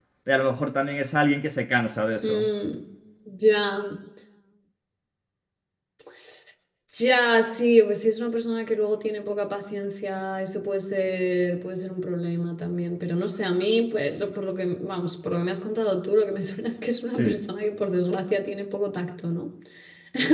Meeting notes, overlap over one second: none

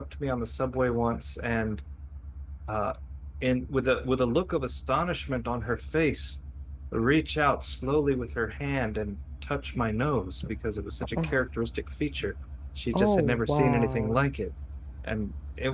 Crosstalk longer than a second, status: present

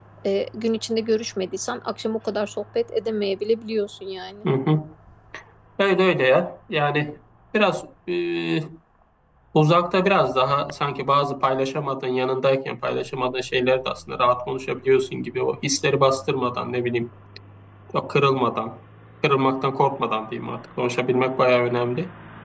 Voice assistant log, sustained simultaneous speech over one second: none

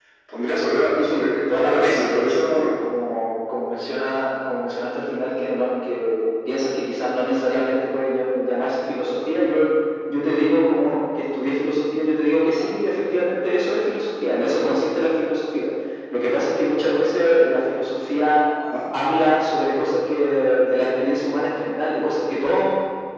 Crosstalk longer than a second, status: present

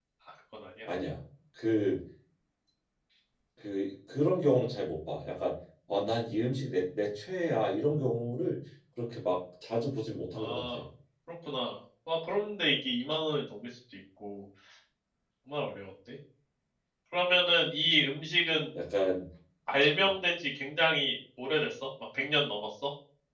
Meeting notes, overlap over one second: none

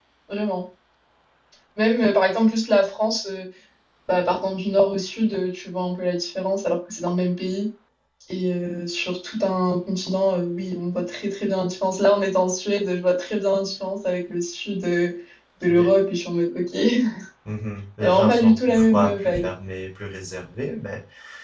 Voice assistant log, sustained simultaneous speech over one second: present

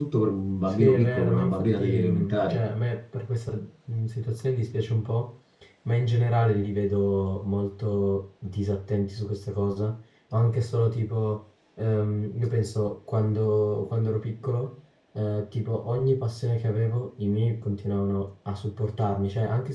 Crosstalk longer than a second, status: present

